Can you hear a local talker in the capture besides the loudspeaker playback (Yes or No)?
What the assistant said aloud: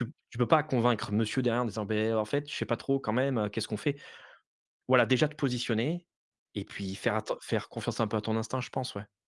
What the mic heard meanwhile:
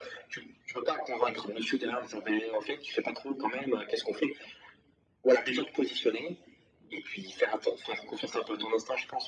No